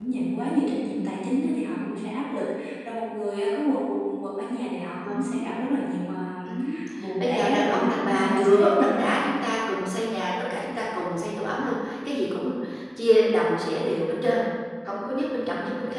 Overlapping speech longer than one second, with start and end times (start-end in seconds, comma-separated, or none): 7.2-9.1